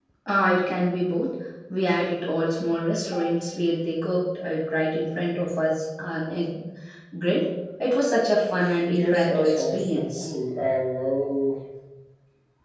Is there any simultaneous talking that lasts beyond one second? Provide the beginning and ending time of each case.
9.0-10.3

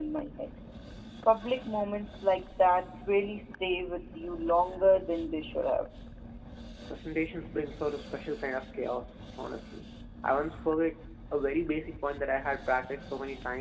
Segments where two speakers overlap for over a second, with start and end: none

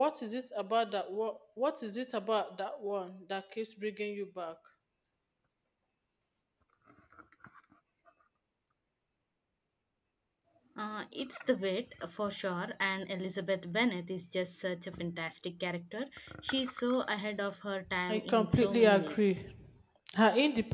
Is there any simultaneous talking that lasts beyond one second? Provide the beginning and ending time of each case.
18.1-19.4

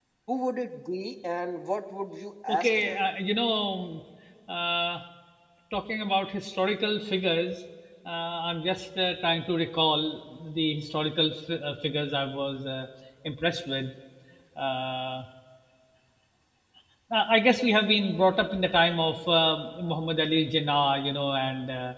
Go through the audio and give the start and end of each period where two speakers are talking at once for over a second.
none

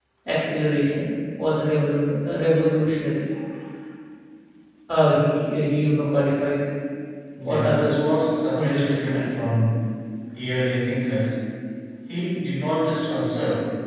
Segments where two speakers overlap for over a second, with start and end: 7.5-9.3

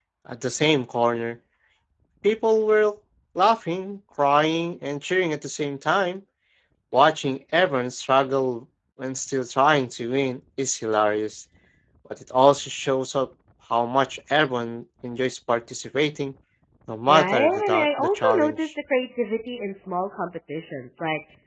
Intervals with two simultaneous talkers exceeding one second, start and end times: 17.1-18.7

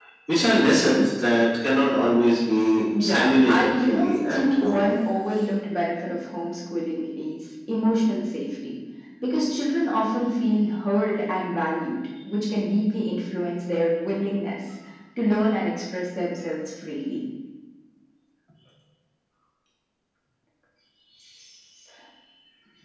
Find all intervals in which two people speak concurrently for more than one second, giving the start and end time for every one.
3.0-4.8

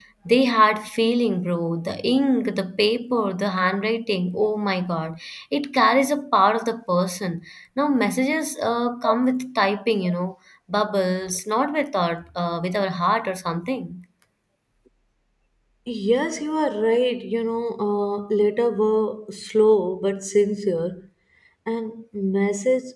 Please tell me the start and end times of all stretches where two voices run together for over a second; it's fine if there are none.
none

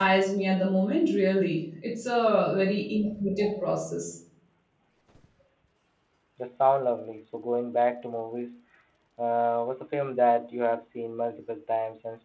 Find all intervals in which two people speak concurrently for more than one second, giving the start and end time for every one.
none

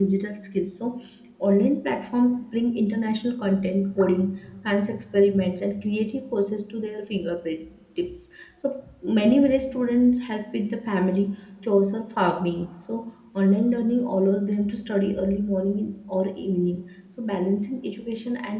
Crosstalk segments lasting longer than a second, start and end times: none

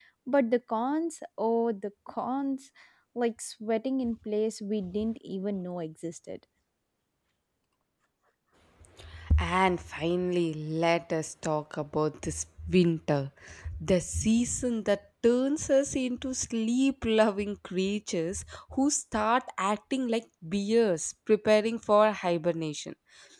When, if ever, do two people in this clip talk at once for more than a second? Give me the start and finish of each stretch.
none

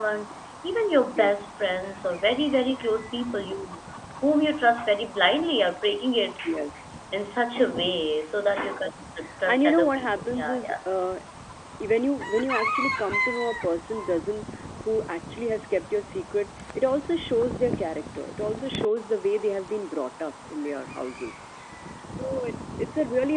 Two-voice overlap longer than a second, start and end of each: 9.5-10.7

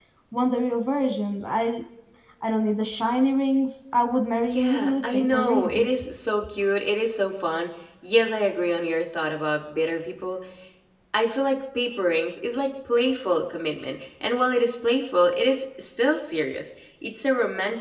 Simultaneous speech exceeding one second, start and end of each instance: 4.5-6.0

